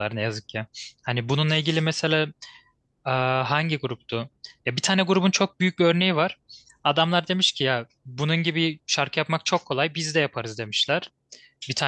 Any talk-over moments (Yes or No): No